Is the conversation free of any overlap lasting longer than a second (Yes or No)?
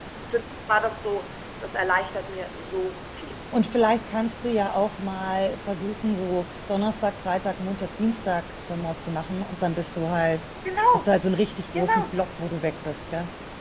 Yes